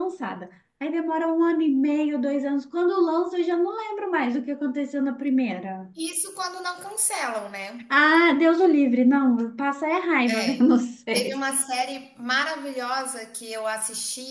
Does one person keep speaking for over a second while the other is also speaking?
No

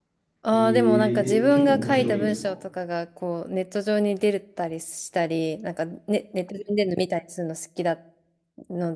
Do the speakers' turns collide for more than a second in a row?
Yes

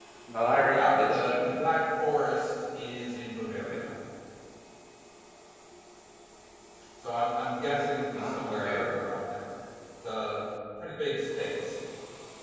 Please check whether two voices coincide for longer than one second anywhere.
Yes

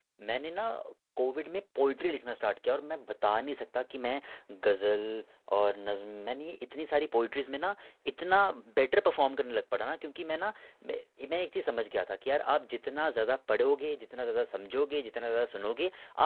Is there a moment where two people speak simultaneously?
No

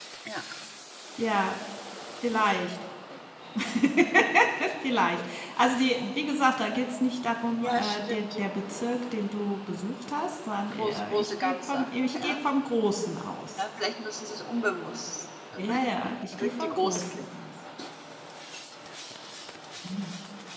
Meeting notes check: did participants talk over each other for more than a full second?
Yes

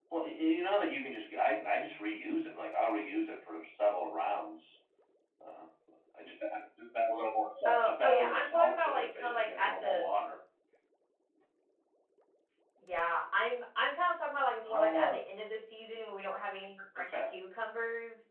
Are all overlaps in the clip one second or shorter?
No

